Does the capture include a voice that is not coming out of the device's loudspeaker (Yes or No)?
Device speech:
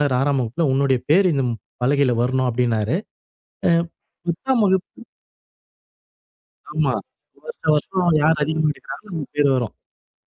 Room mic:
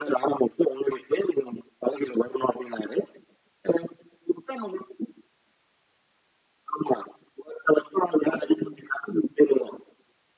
No